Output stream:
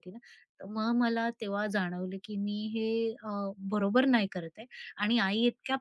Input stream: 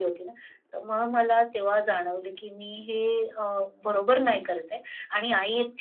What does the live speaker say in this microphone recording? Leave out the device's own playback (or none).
none